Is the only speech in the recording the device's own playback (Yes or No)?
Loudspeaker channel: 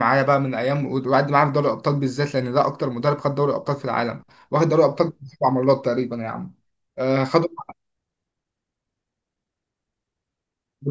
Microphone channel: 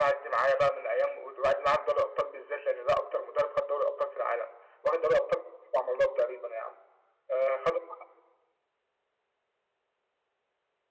Yes